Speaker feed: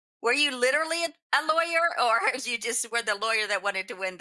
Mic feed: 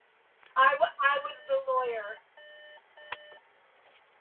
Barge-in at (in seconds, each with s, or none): 0.6 s